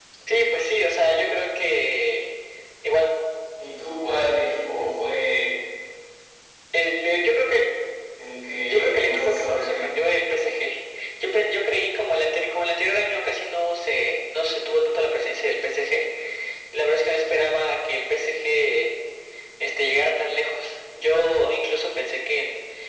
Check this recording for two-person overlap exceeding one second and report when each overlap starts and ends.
8.6-9.9

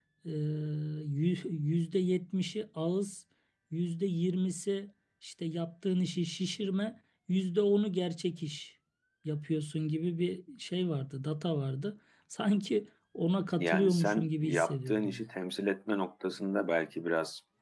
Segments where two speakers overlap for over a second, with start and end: 13.6-15.3

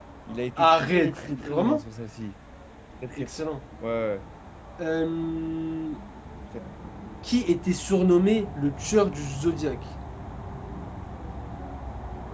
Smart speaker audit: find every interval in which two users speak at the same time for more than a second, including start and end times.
0.6-1.8

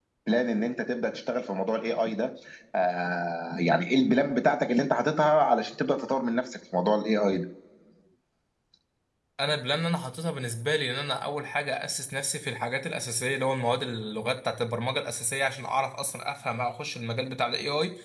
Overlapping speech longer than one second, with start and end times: none

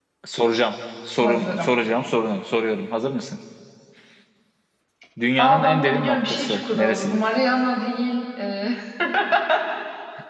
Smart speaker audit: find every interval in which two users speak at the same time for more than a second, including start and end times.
5.4-7.3

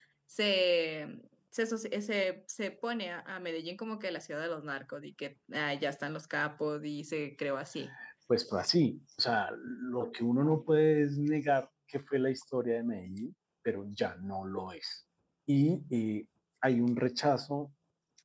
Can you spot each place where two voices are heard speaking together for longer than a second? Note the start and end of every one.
none

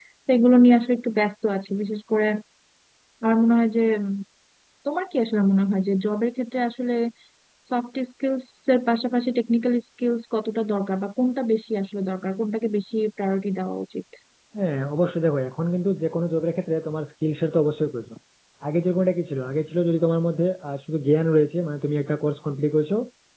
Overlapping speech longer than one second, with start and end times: none

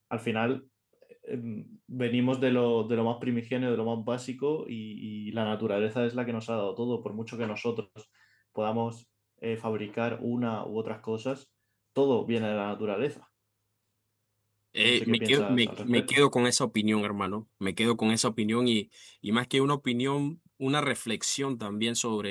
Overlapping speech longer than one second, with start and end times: 14.9-16.2

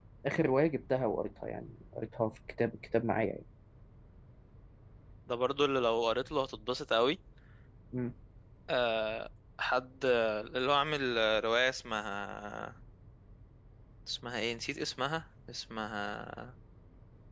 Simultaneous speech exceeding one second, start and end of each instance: none

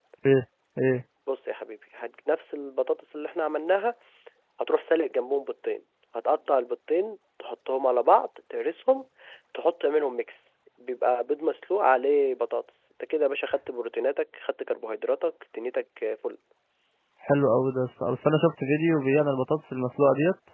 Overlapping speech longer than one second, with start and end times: none

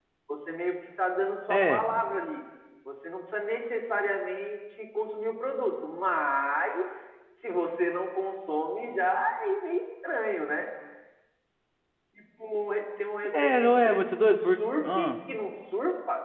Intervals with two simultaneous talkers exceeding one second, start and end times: 13.2-15.1

